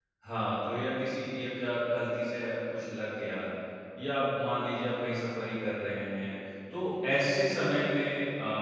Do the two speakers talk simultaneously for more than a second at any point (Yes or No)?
No